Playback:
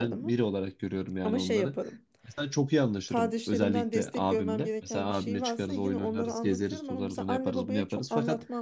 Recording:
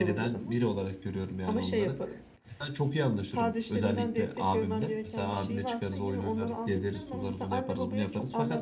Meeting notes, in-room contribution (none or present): none